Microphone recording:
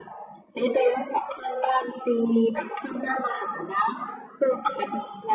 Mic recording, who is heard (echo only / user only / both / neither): echo only